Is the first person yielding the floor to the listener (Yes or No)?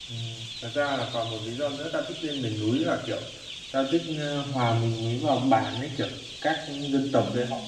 No